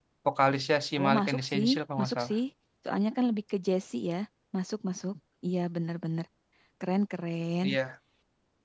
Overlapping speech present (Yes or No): Yes